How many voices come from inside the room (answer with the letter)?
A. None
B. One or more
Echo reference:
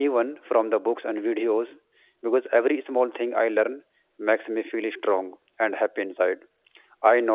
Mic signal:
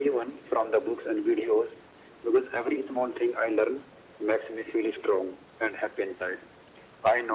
A